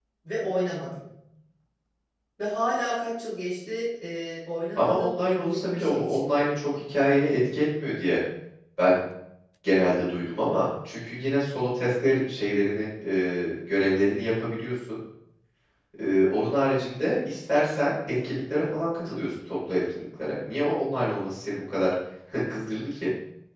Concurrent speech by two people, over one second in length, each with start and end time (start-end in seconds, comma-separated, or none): 4.8-6.5